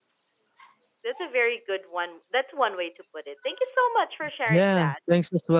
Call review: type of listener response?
taking over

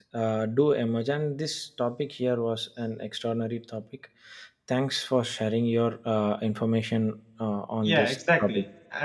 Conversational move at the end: taking over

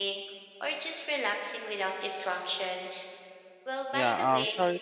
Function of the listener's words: taking over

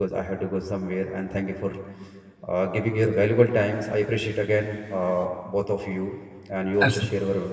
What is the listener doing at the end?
listening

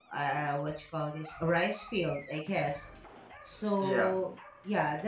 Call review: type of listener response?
listening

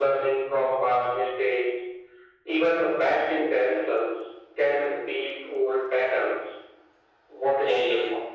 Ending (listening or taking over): taking over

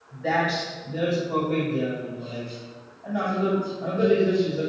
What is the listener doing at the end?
listening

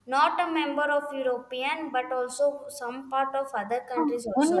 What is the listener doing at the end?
taking over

